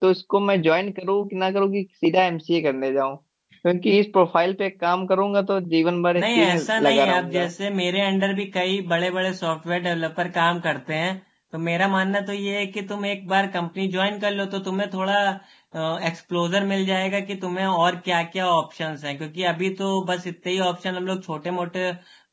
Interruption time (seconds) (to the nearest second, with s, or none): 6 s